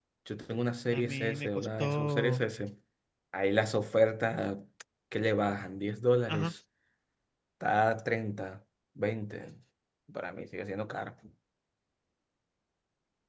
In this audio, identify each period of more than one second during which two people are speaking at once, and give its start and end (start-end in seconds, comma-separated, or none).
0.9-2.4